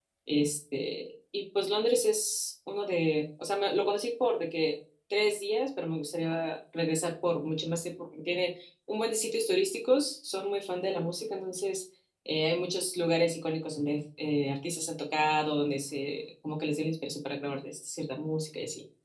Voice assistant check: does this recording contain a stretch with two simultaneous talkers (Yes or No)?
No